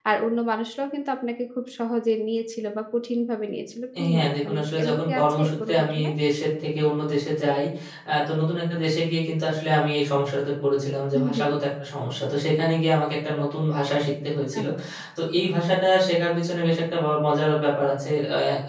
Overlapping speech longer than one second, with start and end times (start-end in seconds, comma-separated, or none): 4.1-6.1